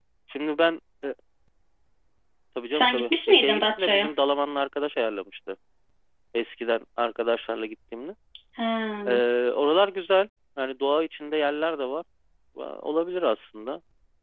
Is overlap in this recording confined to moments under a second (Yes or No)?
No